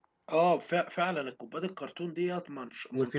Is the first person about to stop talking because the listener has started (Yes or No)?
Yes